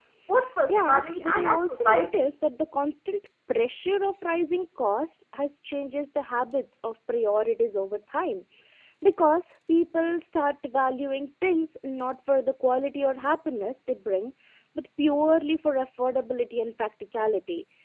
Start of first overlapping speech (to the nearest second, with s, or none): 1 s